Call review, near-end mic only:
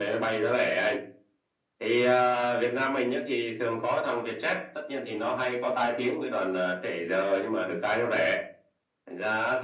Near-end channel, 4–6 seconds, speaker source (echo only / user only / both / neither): echo only